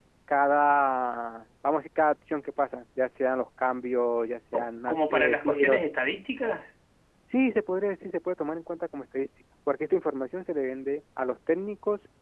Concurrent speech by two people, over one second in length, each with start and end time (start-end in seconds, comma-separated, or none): 4.5-5.8